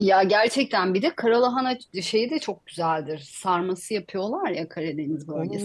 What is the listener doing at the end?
taking over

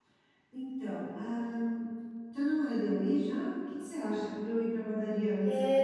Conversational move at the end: taking over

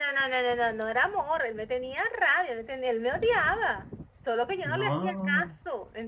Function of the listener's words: listening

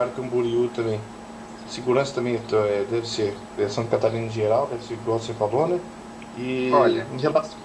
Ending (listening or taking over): listening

